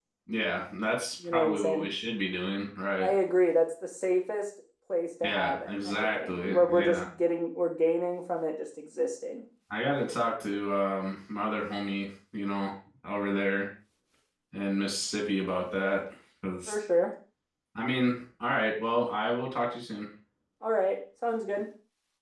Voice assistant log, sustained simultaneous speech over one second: present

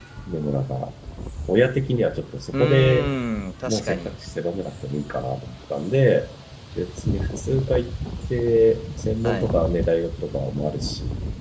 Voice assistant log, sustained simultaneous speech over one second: none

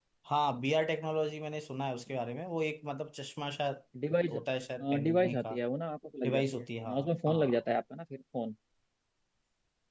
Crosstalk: present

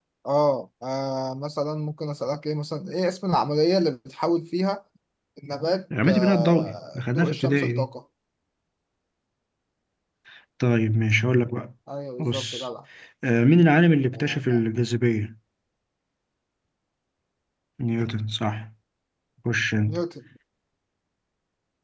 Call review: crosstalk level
present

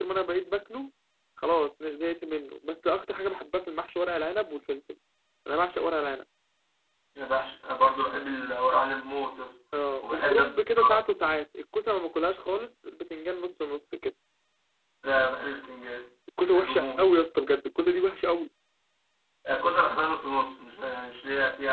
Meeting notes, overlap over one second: none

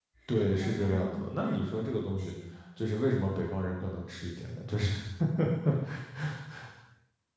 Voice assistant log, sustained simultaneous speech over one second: present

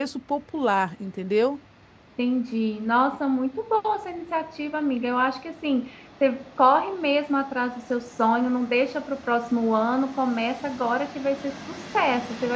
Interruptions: none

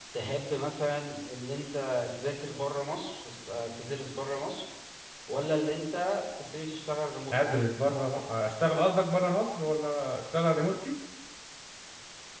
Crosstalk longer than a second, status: none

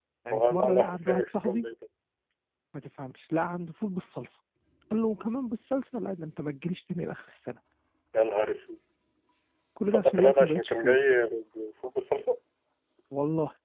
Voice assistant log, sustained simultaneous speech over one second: present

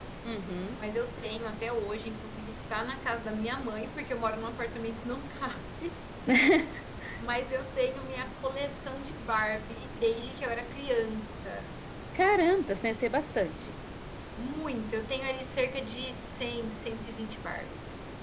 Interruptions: none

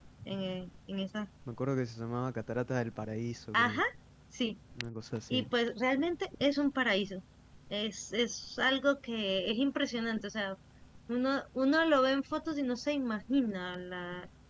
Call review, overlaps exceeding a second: none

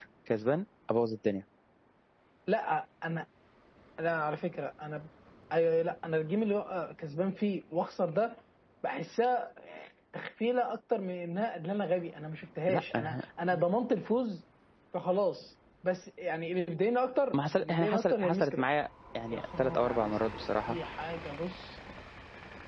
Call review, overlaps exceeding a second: present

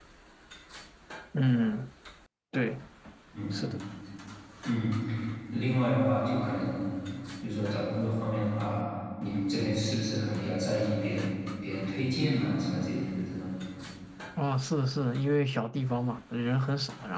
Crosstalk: none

